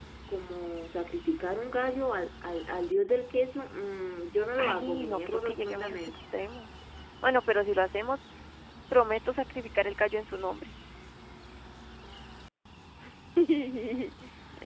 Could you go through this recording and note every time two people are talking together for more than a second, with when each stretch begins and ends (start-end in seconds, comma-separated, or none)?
4.6-6.1